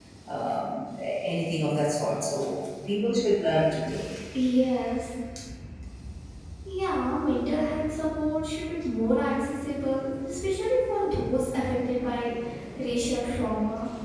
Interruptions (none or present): none